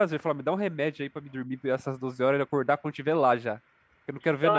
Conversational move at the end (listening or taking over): taking over